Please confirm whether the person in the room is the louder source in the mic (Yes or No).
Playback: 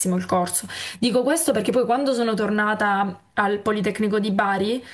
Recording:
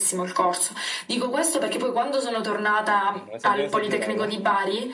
No